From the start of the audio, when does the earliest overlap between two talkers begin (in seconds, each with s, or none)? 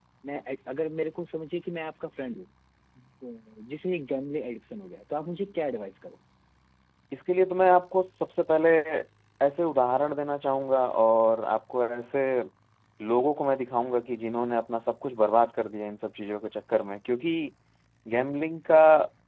none